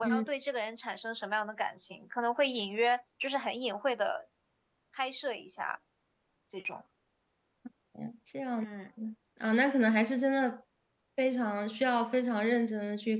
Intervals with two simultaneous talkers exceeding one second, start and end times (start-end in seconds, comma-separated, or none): none